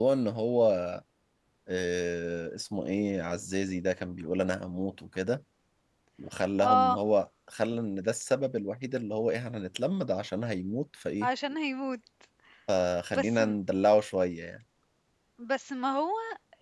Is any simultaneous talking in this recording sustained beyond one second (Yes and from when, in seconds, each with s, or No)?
No